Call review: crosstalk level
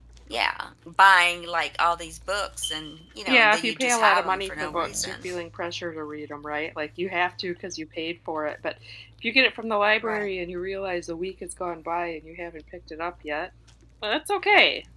present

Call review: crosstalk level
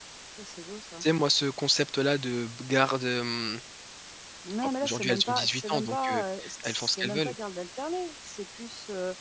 present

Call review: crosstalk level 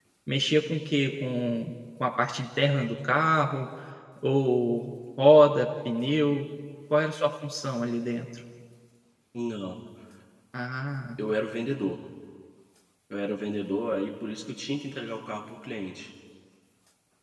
none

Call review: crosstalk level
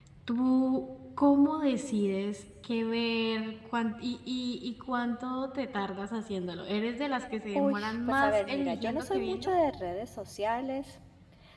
present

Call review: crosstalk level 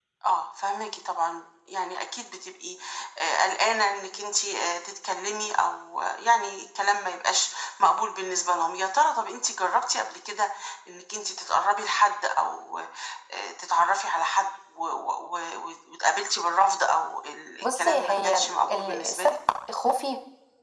present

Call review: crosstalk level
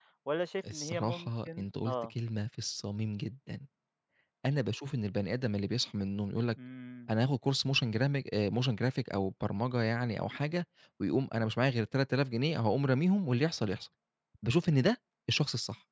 present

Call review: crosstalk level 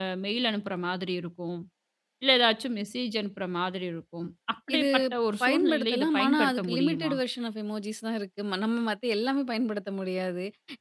present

